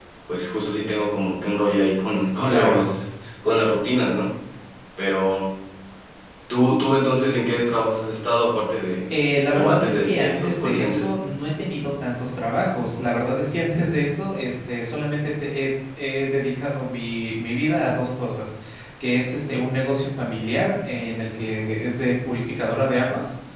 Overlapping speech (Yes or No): Yes